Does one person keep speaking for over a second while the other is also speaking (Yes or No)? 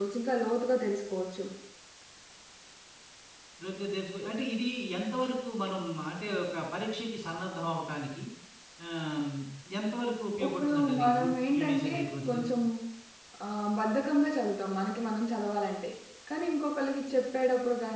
Yes